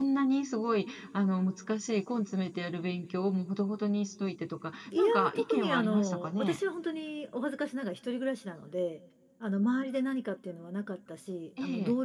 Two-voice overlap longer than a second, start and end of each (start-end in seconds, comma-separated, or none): 5.0-6.6